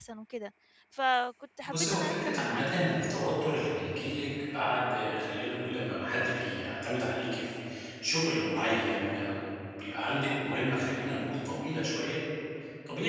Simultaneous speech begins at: 2 s

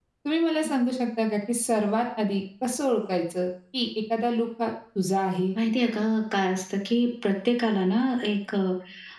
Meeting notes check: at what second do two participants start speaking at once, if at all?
none

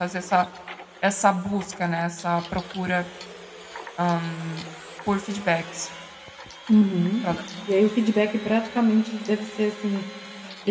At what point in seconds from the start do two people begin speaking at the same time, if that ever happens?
none

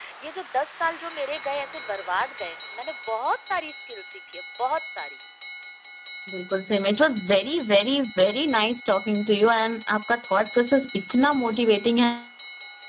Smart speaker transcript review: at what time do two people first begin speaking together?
none

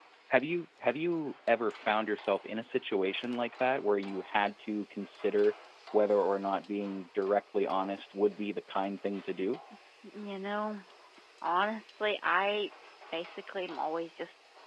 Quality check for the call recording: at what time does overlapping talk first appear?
none

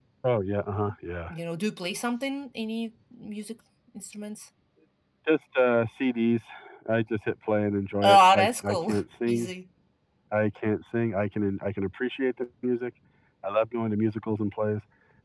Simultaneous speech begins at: 8 s

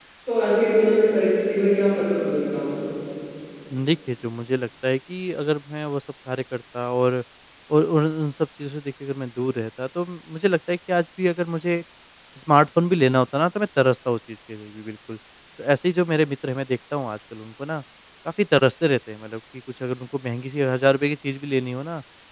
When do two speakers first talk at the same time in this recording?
none

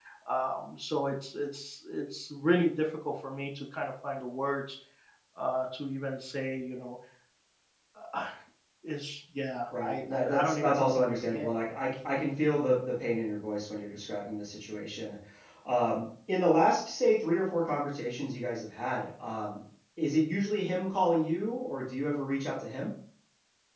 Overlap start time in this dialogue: 10 s

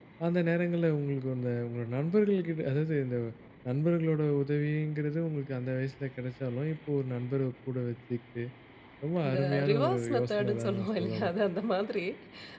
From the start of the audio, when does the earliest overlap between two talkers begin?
9 s

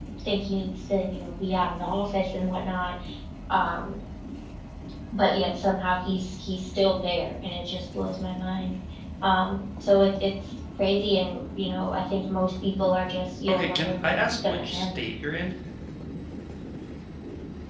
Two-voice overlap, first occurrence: 13 s

